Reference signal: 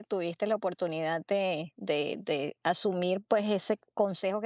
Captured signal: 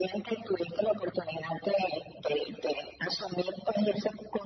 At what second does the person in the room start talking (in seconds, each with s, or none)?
none